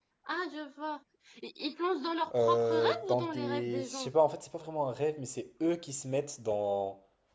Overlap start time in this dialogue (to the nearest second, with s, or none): 2 s